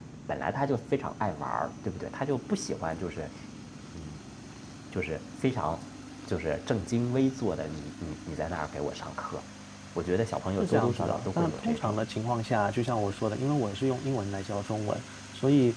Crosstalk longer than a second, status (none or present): present